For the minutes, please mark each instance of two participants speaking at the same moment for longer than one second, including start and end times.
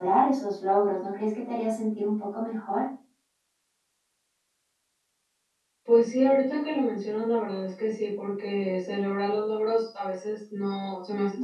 none

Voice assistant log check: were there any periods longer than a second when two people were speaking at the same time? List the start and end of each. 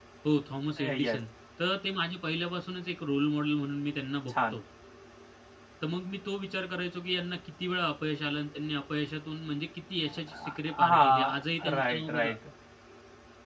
10.3-12.4

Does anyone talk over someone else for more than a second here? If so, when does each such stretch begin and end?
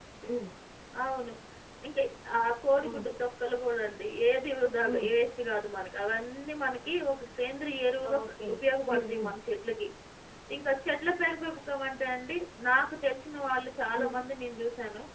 none

